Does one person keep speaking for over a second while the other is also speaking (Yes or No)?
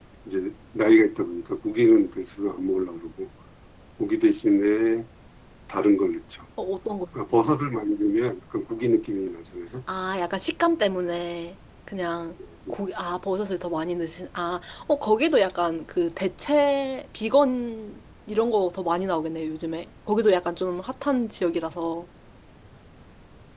No